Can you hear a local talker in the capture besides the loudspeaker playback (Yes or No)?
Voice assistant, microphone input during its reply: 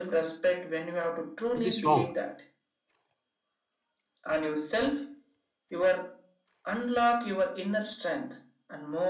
Yes